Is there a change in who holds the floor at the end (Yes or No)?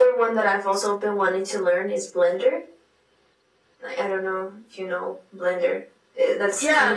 Yes